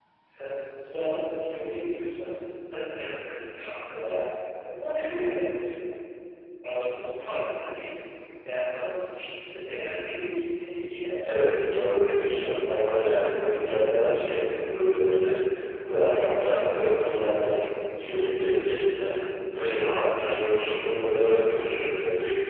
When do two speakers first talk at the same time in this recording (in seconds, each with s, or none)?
11.2 s